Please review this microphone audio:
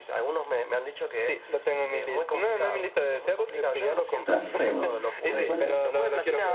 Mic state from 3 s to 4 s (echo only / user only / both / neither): echo only